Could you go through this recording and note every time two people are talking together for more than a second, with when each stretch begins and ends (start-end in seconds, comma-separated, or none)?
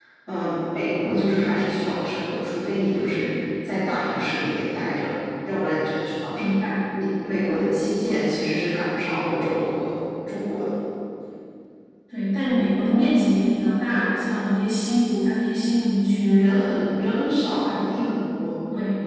none